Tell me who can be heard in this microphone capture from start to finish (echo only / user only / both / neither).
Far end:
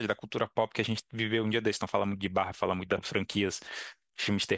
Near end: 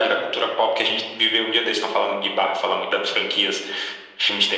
echo only